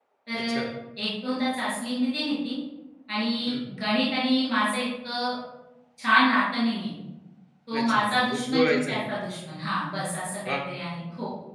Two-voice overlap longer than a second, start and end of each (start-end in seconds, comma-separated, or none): 7.8-9.0